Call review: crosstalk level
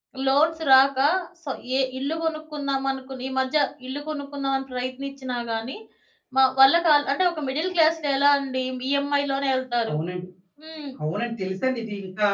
none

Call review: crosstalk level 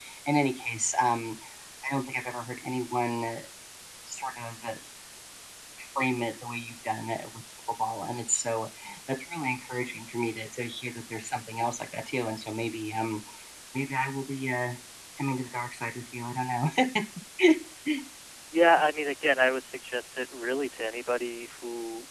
none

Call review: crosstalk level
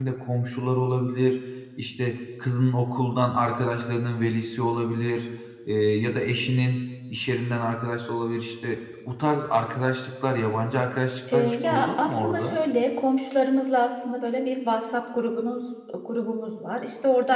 present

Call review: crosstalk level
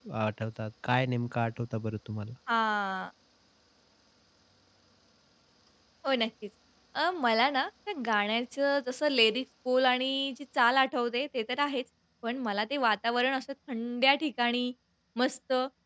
none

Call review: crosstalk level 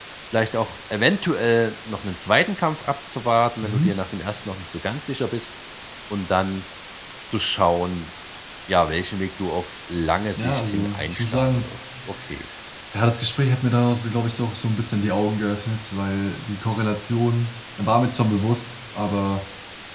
present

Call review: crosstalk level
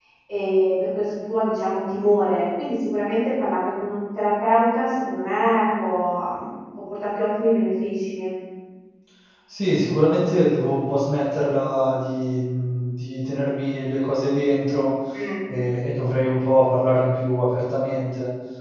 none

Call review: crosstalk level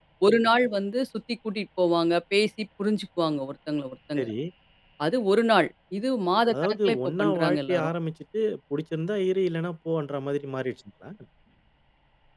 present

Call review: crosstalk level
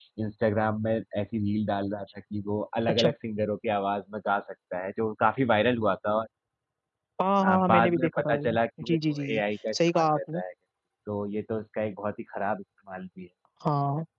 present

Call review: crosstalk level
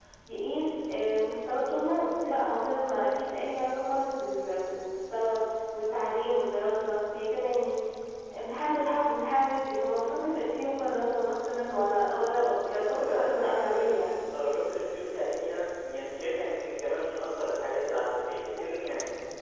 present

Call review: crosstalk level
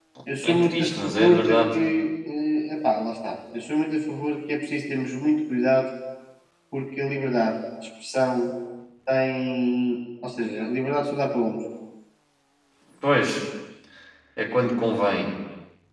present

